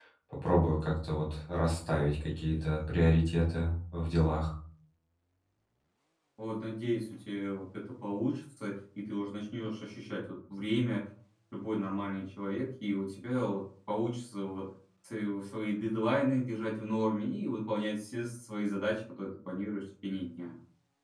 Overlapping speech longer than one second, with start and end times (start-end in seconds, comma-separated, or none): none